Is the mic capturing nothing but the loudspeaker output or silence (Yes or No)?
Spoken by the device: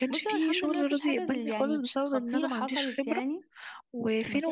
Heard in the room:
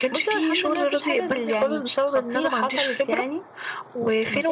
Yes